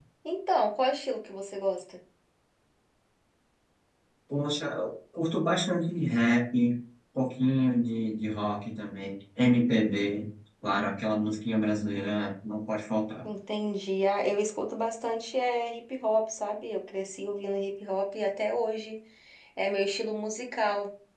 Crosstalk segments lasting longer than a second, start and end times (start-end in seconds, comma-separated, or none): none